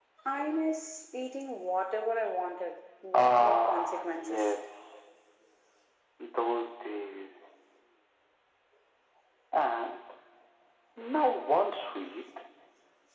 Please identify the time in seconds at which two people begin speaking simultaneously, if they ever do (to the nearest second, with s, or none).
3 s